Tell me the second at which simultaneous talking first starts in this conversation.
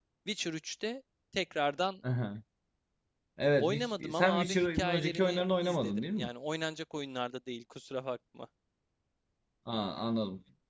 3.6 s

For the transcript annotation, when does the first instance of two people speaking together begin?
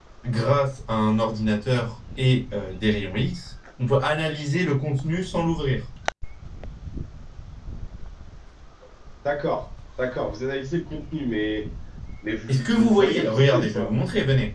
12.5 s

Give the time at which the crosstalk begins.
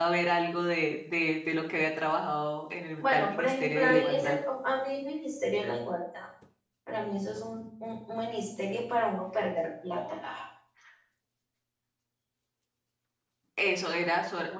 3.0 s

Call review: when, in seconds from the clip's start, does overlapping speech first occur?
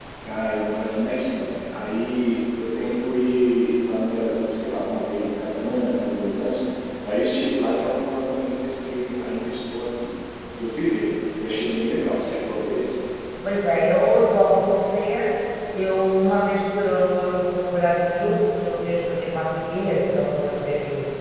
none

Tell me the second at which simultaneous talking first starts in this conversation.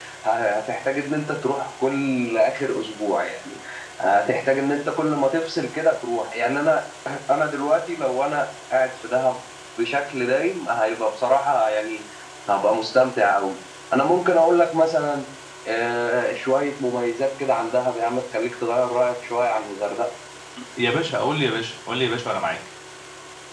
none

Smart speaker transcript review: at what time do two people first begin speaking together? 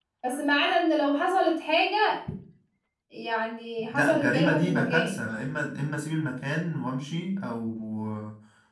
3.9 s

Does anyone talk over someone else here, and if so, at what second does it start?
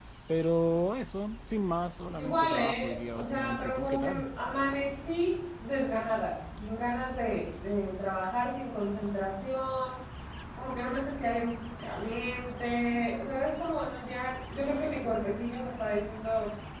2.2 s

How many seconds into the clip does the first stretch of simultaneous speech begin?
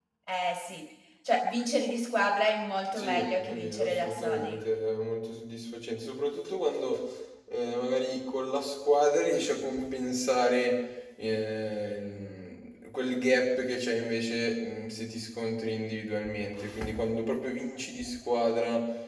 3.0 s

